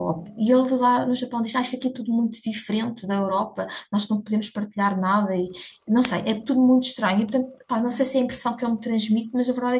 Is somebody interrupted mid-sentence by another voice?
No

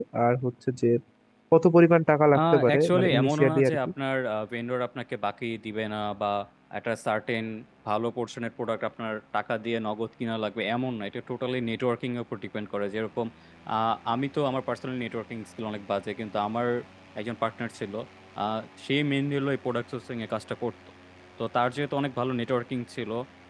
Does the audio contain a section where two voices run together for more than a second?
Yes, from 2.4 s

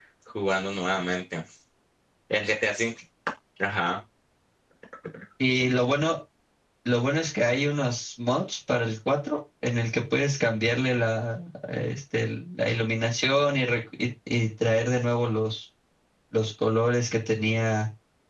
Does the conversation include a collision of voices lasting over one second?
No

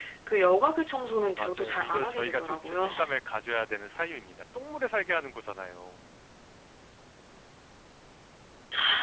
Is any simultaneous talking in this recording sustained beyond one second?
Yes, from 1.0 s

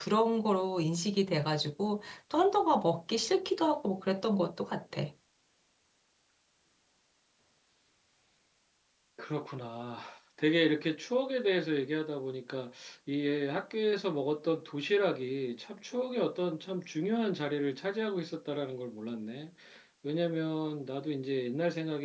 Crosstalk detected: No

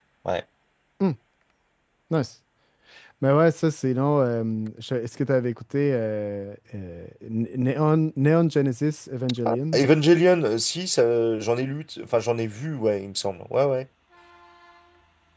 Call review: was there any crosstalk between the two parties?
No

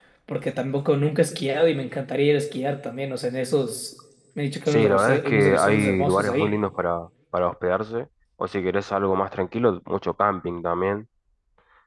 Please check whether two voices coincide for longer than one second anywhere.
Yes, from 4.7 s

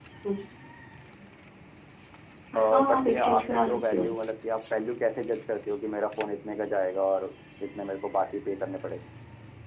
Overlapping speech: Yes, from 2.9 s

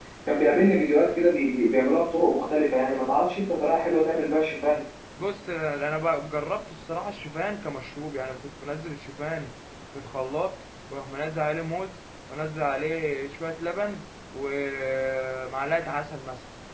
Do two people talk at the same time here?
No

